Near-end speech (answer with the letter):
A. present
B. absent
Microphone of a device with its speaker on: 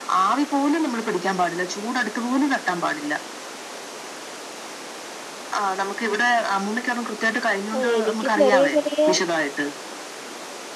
A